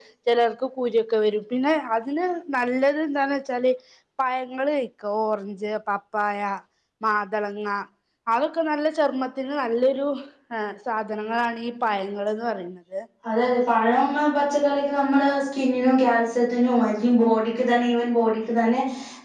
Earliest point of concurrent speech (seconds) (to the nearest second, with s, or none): none